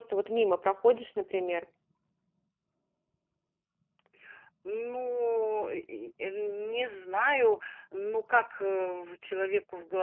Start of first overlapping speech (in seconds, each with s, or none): none